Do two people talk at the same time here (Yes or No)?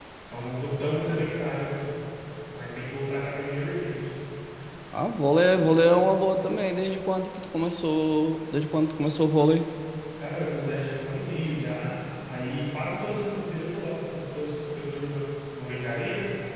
No